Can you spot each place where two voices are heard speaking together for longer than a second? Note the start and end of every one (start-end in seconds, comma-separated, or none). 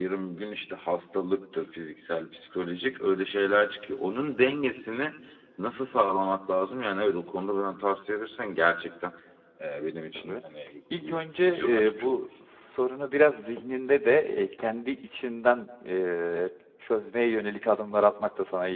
11.0-12.3